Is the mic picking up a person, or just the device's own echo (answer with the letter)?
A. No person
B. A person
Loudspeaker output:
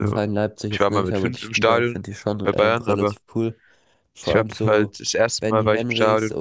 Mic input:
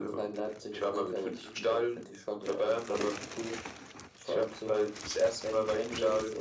A